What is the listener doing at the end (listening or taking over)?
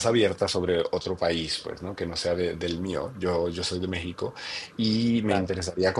listening